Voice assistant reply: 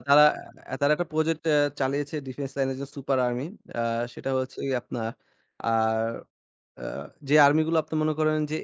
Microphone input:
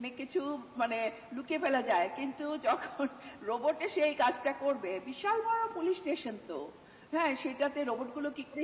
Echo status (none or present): none